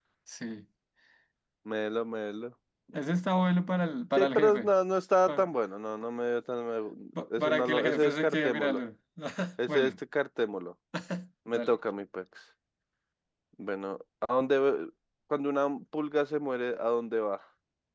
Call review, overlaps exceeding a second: present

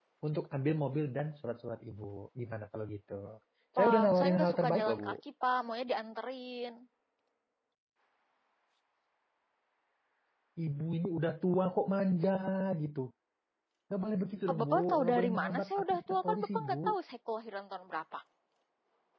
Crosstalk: present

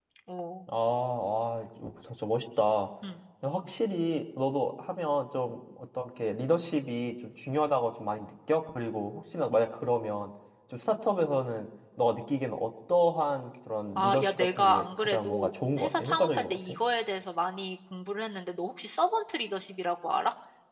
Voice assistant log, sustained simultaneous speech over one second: present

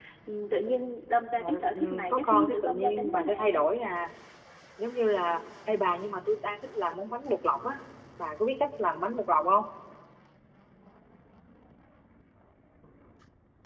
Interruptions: present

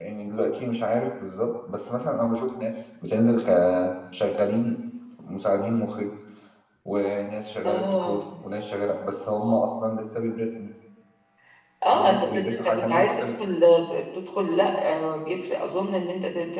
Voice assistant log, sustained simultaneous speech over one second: present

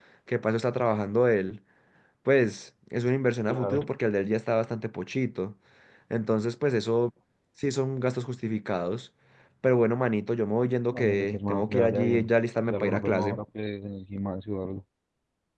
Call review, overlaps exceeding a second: present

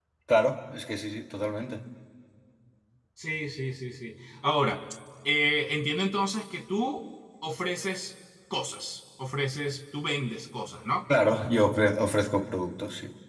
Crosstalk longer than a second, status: none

